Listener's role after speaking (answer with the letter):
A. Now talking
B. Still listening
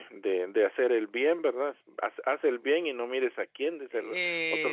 A